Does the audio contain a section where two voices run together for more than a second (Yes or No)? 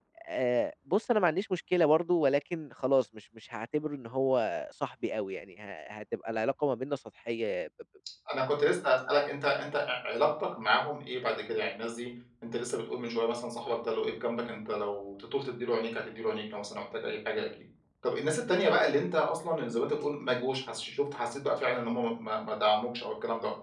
No